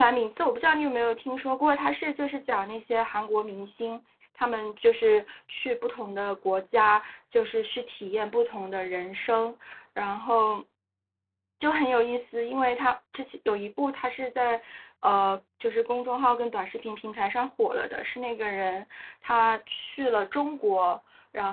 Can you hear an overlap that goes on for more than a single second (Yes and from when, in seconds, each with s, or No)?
No